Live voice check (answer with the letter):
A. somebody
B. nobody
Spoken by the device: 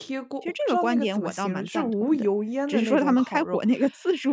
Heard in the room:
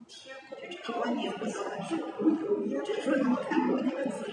B